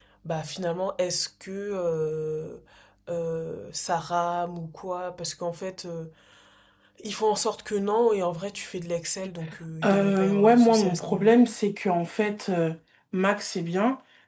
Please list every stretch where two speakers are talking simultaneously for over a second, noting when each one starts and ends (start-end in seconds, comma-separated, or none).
9.8-11.3